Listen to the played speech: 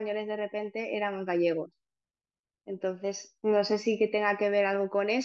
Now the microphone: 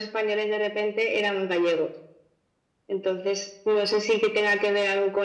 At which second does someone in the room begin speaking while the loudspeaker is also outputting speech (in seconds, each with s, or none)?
none